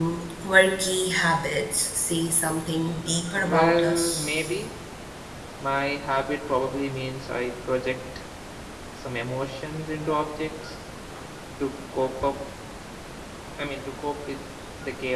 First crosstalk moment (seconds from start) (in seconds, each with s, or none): 3.3 s